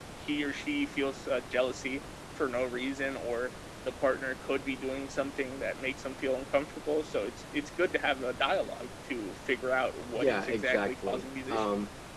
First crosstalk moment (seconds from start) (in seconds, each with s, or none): 10.2 s